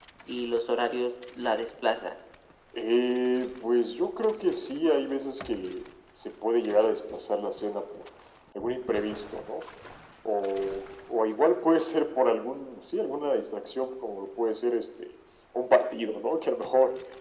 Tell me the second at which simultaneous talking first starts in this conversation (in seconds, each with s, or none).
none